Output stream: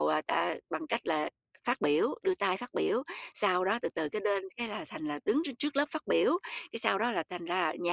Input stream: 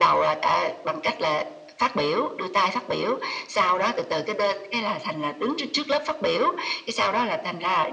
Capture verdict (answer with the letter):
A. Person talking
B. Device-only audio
B